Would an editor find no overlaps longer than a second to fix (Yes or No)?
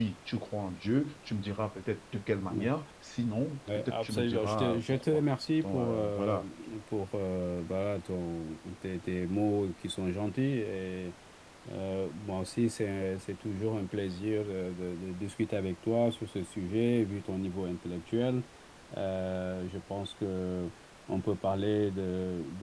No